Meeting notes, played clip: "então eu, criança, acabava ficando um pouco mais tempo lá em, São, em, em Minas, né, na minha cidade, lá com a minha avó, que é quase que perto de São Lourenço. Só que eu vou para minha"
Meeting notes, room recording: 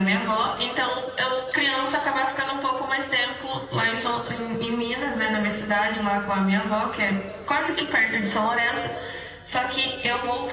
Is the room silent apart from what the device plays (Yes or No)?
Yes